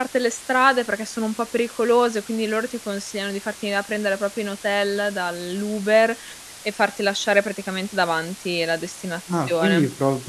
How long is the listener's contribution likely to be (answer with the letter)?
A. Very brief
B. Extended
B